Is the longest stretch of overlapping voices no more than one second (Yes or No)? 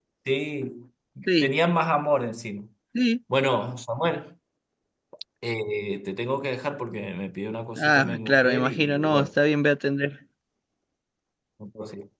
No